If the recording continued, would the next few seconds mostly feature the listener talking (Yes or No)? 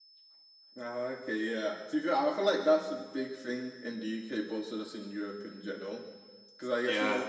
No